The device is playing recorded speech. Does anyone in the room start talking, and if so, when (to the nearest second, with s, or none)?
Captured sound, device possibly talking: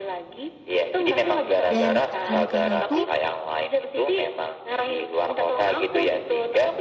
2 s